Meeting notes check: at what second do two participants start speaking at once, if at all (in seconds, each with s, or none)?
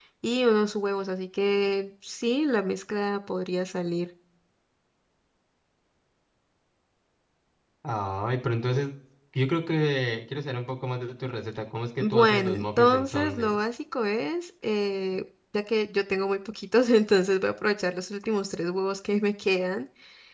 12.0 s